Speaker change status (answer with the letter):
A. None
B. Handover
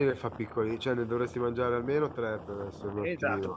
B